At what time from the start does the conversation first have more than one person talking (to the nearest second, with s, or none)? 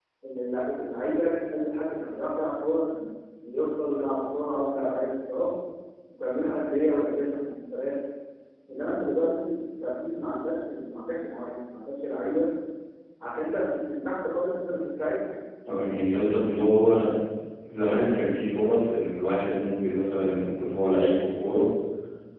none